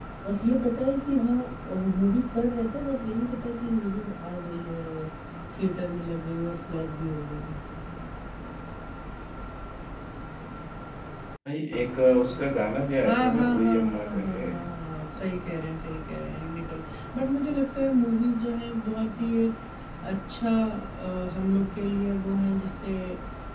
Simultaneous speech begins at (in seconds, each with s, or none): 13.0 s